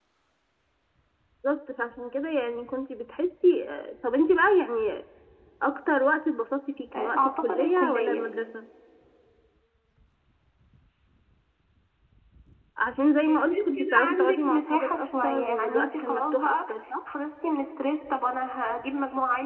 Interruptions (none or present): present